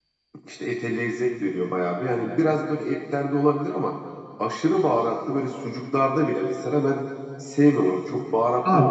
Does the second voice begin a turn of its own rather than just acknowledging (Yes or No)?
Yes